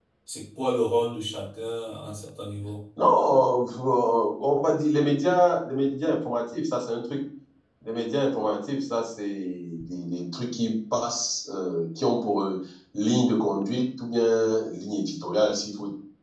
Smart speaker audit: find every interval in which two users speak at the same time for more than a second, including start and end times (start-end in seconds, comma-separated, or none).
none